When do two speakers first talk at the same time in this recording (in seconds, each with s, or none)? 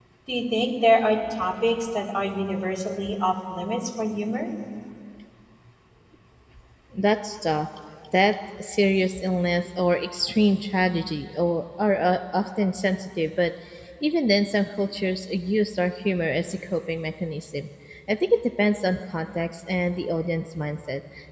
none